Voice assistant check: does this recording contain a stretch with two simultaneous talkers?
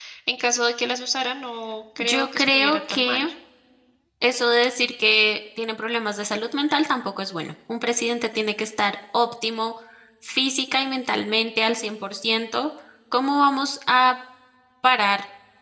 Yes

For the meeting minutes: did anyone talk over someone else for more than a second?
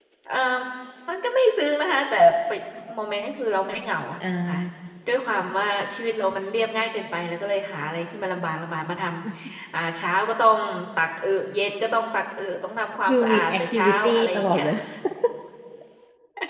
Yes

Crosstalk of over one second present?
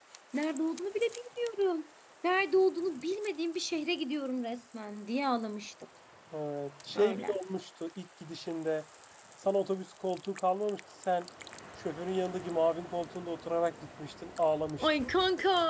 No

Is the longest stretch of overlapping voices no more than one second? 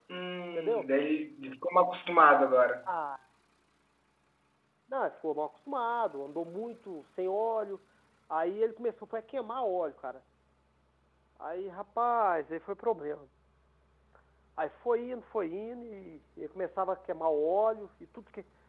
Yes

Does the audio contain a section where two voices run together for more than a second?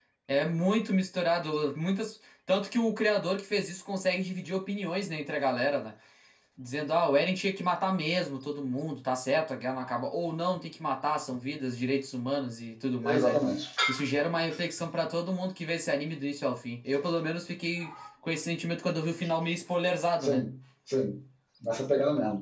No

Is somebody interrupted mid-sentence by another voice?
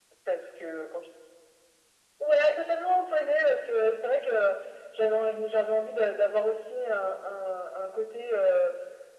No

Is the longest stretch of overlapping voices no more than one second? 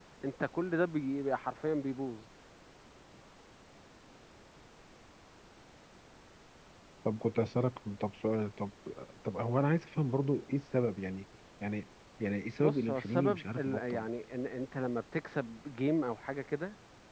No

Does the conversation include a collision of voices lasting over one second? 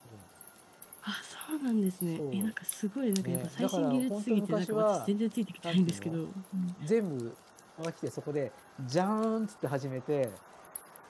Yes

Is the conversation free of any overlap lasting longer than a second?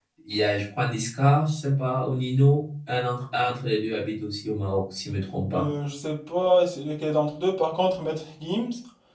Yes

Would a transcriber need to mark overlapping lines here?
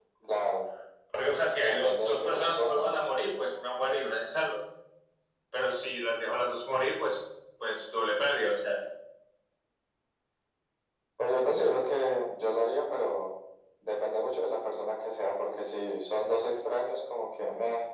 Yes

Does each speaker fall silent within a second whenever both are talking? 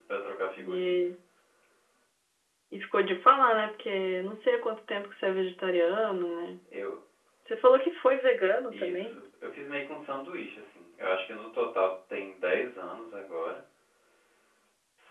Yes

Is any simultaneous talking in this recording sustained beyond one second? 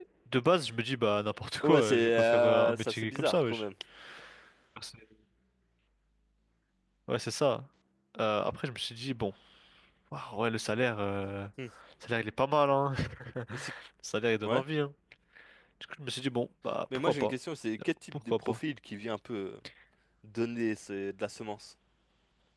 Yes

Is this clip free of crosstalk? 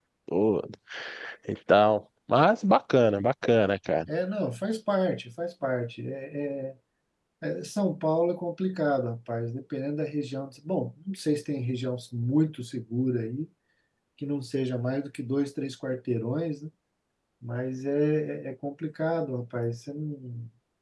Yes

